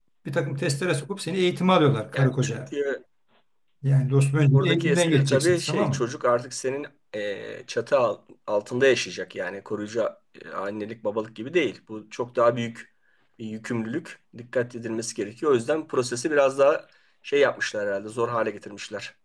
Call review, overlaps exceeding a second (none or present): present